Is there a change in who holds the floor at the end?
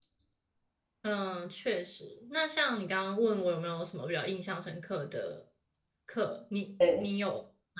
No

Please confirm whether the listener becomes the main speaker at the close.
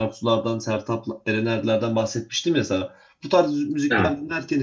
No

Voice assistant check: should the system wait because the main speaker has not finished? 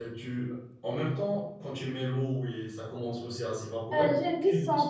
No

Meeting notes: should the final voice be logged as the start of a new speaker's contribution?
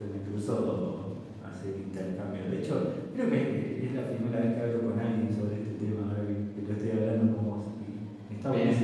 No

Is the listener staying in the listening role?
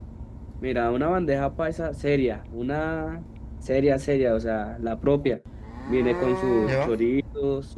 Yes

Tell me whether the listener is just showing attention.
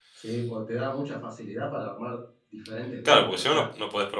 No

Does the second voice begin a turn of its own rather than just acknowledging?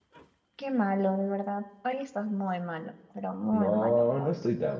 Yes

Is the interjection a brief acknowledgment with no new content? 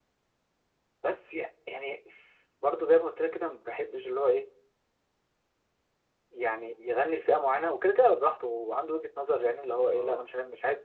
Yes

